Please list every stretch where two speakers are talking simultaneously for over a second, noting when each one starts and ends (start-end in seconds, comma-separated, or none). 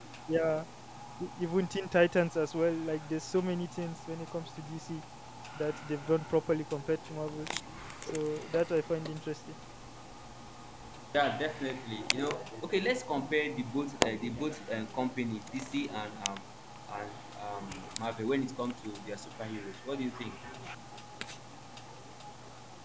none